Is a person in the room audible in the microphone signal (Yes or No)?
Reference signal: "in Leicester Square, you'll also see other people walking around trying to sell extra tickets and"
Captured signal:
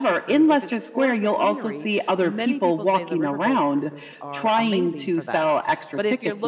Yes